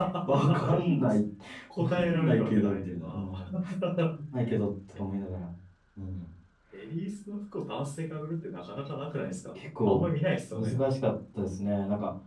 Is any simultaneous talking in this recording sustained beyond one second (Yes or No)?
Yes